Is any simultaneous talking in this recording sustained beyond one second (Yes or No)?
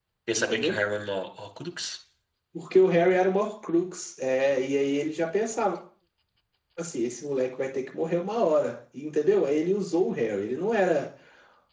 No